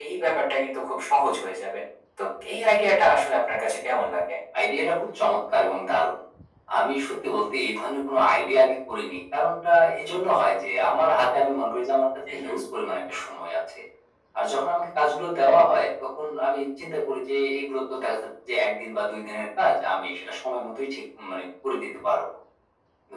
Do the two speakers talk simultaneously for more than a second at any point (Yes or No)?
No